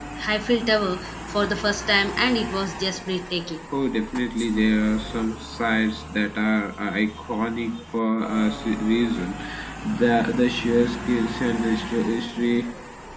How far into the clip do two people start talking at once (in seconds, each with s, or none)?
none